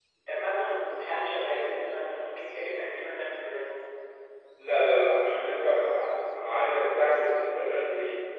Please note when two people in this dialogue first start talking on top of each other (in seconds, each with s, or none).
none